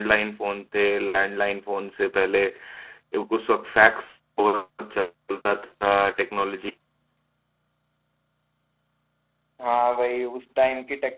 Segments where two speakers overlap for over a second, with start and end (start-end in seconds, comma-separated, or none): none